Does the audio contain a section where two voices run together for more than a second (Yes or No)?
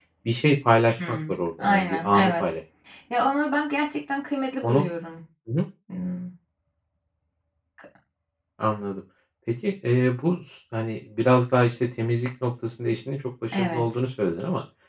Yes